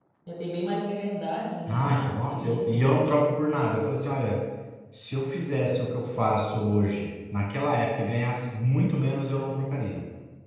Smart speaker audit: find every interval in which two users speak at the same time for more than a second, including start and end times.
1.7-3.0

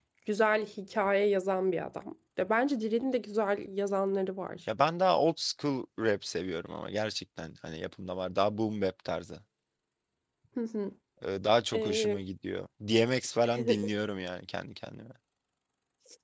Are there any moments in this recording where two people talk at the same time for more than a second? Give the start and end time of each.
none

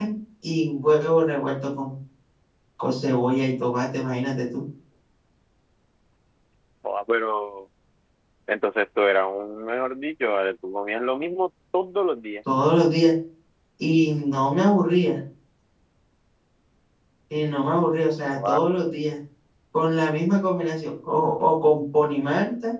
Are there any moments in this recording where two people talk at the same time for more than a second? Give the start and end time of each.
none

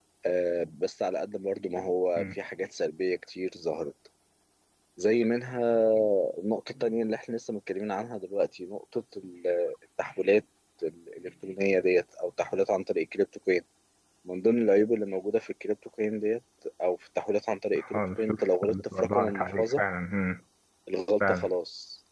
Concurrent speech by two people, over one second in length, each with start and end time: 17.9-19.8

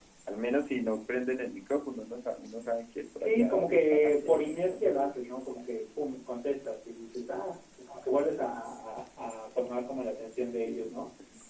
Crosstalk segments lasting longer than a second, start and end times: 3.2-5.1

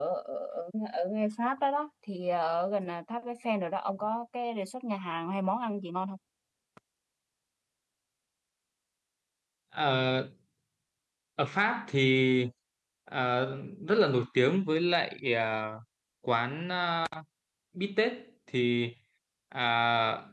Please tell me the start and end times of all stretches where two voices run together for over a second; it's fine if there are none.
none

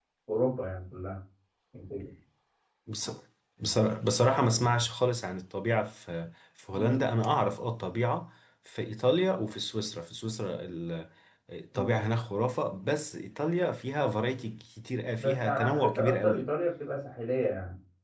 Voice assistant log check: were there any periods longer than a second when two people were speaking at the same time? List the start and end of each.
15.2-16.5

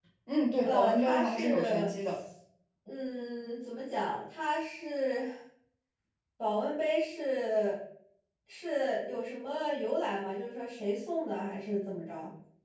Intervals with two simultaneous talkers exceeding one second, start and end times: 0.6-1.9

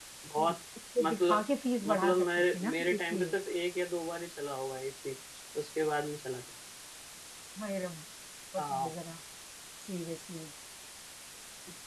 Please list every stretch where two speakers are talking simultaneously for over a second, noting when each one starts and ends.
1.9-3.4

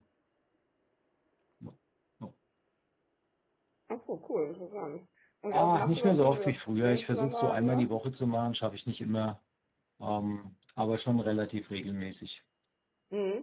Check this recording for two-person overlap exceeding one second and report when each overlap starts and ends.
5.5-7.9

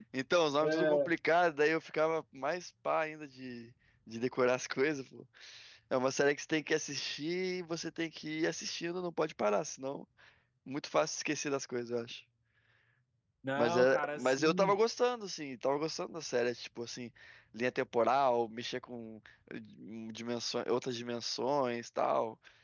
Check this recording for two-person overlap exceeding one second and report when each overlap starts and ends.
13.6-14.8

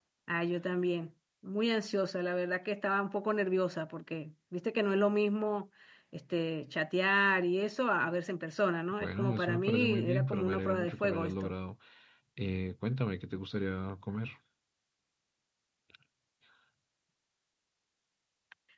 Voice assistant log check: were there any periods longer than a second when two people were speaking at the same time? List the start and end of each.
9.0-11.5

